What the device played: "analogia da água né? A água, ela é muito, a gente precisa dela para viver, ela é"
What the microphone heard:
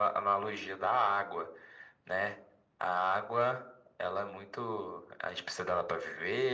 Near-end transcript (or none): none